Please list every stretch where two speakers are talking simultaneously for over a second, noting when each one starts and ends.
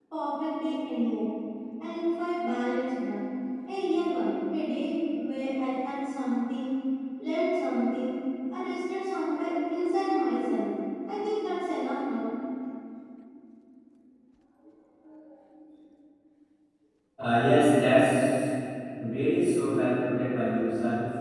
none

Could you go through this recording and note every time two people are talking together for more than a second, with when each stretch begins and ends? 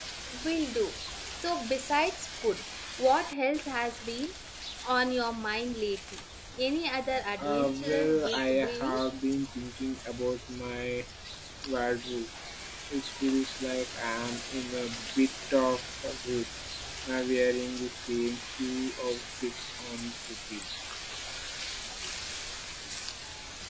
7.4-9.0

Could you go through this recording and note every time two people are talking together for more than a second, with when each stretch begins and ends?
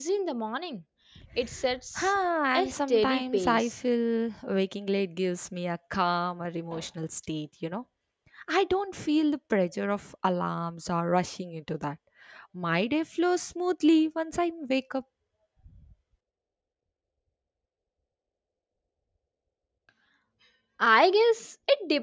2.5-3.8

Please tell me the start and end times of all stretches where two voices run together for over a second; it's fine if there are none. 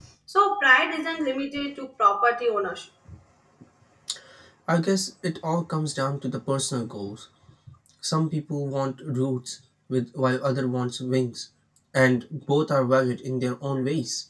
none

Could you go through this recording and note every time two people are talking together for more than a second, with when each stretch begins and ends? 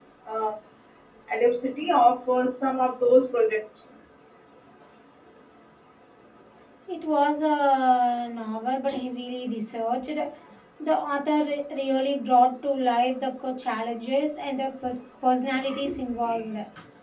none

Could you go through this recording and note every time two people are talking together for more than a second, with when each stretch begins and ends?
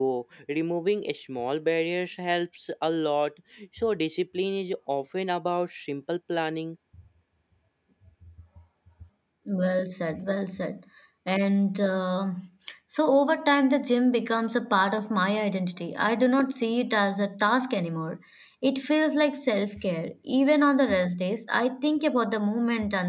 none

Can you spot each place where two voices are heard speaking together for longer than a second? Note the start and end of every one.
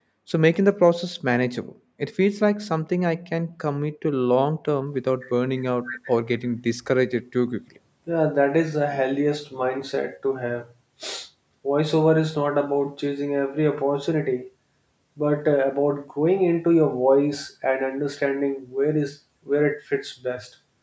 none

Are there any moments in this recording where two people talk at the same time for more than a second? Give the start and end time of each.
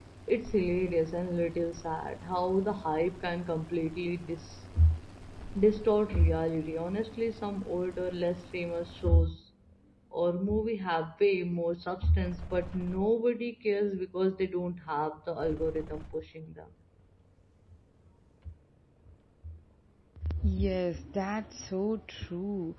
none

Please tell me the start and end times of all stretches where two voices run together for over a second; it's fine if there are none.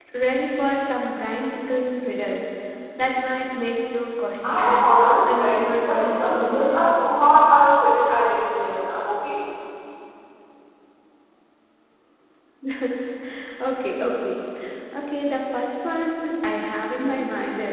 5.3-6.8

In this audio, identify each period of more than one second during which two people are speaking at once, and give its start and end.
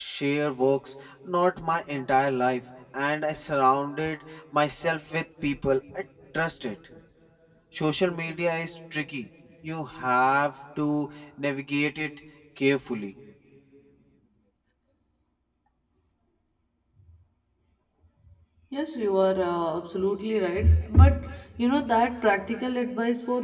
none

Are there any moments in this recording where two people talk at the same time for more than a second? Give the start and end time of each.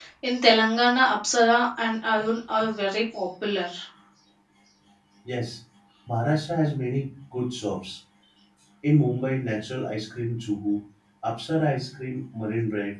none

